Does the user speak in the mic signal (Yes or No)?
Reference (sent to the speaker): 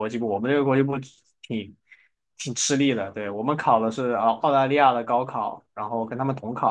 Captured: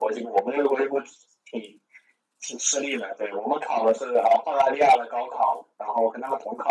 No